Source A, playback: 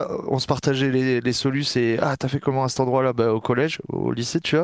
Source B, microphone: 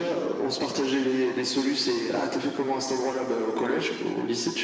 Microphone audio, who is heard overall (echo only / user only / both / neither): echo only